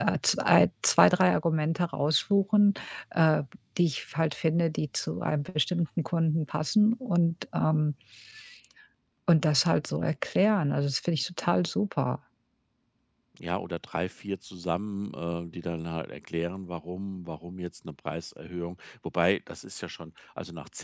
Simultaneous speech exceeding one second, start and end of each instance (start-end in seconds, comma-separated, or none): none